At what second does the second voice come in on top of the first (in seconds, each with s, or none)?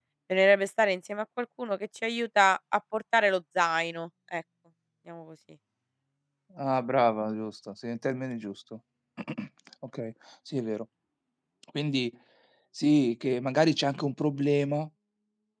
none